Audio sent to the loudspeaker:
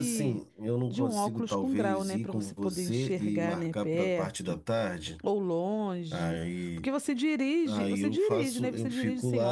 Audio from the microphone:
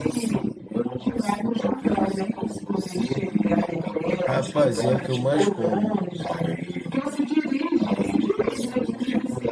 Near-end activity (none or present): present